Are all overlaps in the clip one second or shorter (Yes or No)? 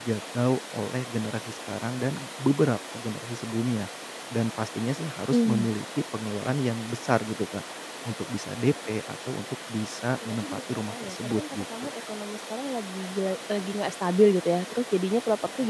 No